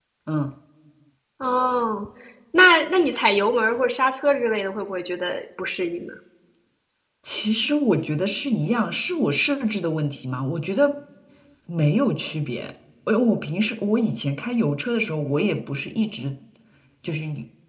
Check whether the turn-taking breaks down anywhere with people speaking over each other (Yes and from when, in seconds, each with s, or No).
No